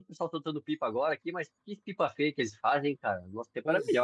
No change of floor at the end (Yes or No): No